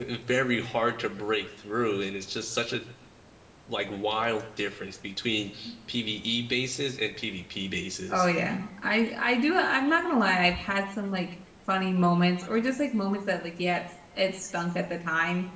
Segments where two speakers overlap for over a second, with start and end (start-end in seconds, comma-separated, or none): none